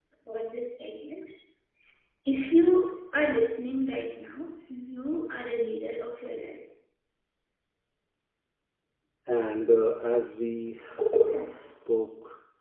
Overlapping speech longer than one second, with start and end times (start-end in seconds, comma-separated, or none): none